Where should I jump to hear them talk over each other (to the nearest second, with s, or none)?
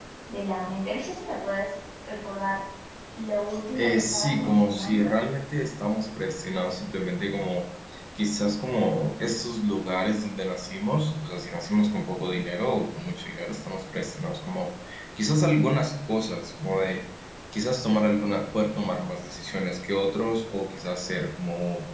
4 s